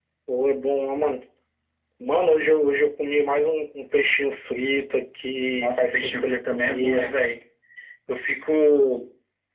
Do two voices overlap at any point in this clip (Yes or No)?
Yes